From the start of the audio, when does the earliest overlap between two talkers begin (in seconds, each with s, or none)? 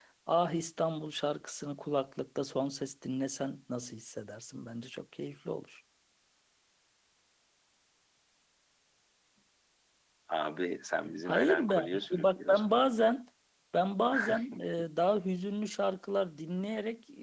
11.3 s